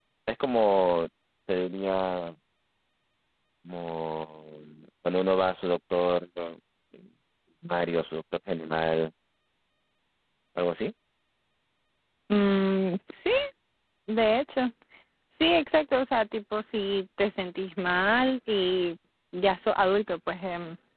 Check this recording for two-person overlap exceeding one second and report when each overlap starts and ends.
none

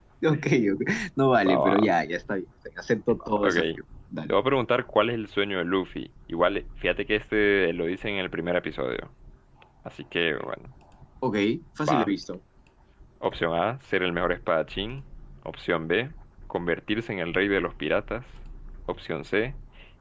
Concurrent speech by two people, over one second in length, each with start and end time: none

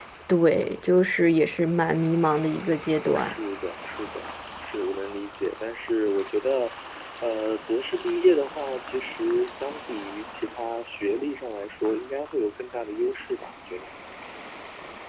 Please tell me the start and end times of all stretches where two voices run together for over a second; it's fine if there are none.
none

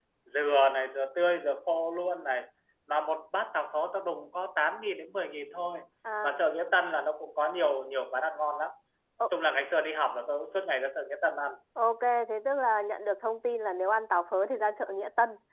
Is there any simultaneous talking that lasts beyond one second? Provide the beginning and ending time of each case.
none

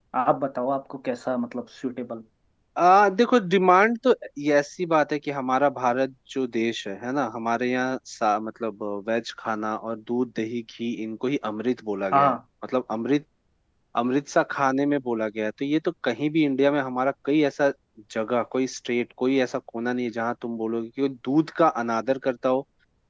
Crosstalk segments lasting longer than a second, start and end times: none

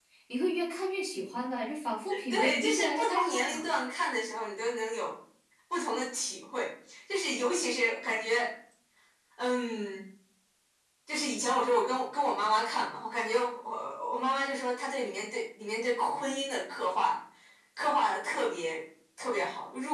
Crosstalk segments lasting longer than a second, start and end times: 2.3-3.7

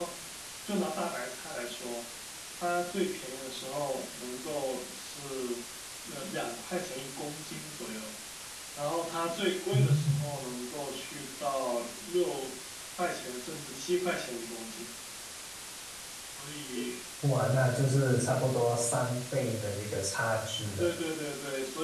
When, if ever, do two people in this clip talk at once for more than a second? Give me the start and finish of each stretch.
none

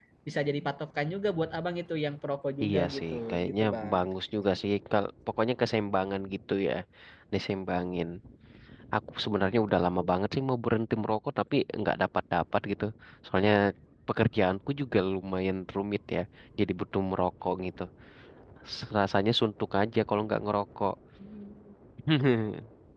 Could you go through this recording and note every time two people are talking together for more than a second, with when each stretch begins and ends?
2.6-4.0

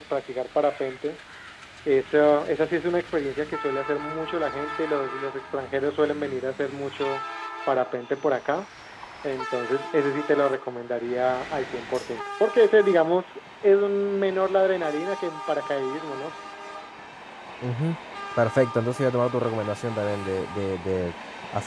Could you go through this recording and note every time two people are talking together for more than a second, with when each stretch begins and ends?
none

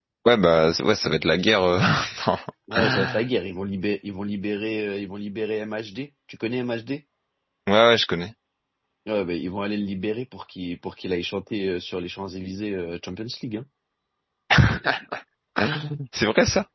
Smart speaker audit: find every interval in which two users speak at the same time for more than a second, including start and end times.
none

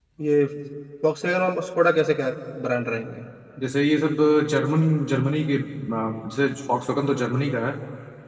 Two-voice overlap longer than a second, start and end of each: none

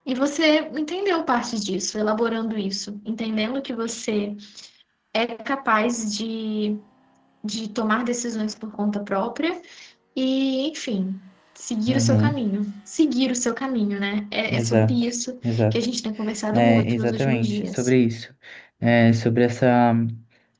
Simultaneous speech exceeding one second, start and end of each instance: 16.5-17.9

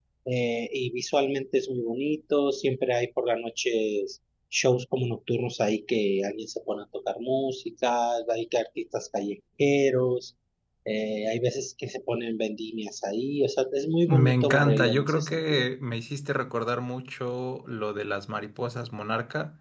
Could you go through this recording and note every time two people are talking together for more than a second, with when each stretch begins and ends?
14.1-15.7

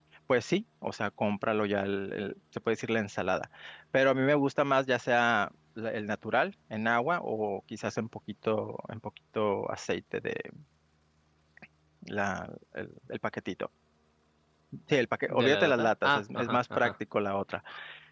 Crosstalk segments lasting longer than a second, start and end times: 15.3-16.9

